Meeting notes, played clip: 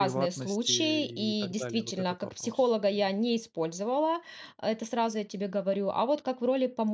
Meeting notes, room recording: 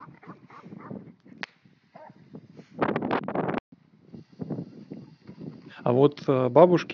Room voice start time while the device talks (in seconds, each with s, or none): 5.8 s